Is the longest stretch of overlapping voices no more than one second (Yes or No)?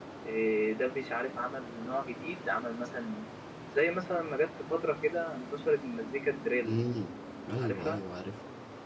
Yes